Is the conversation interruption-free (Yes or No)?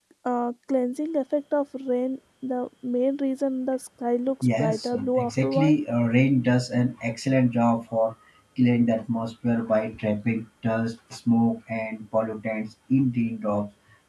No